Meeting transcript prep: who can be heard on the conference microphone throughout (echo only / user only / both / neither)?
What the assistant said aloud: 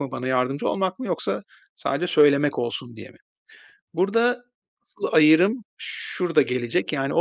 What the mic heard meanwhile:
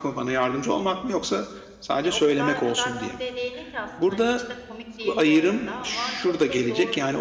both